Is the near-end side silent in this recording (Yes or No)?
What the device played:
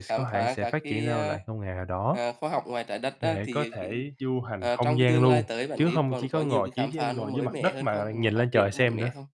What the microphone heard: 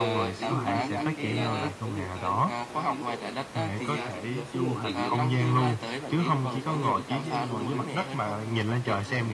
No